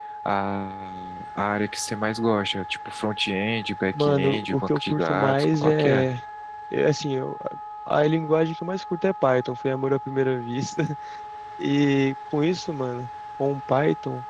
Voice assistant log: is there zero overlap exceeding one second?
No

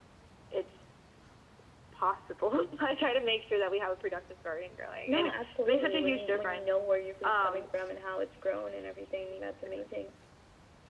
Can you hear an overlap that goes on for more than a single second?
Yes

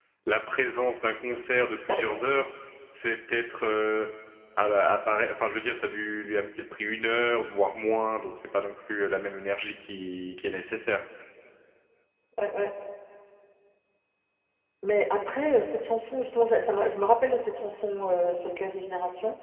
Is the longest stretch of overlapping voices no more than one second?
Yes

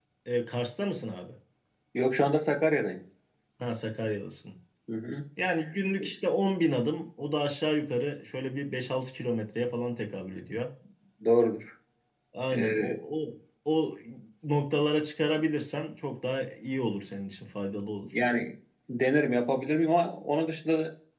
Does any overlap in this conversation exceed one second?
No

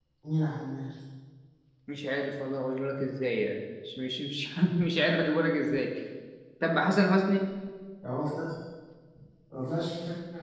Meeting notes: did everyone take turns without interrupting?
Yes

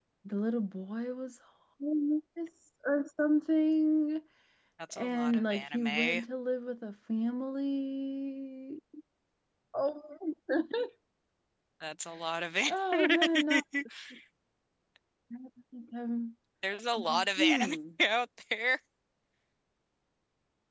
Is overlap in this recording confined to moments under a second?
No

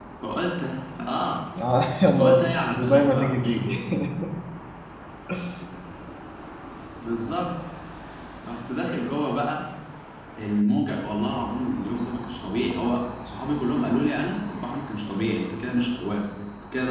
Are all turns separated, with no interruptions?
No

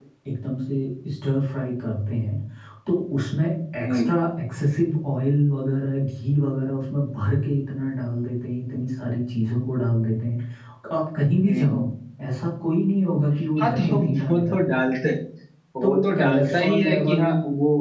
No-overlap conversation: No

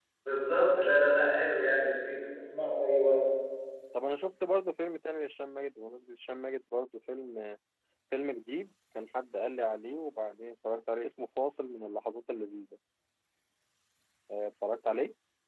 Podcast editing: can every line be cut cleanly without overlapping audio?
Yes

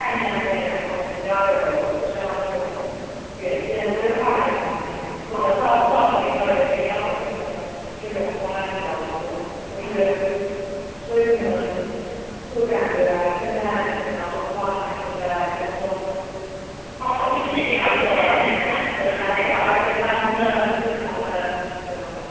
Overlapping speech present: Yes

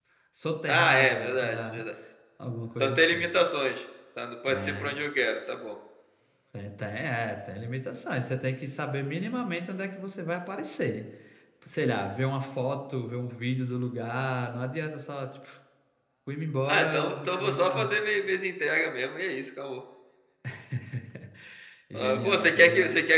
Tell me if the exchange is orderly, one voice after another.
No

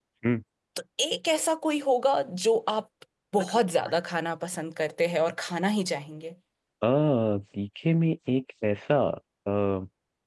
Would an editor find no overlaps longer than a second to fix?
Yes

